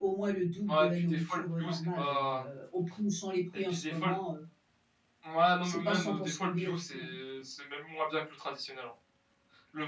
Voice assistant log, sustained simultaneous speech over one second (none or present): present